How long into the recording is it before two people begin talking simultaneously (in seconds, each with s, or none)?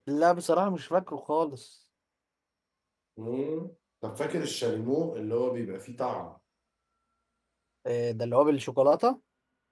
none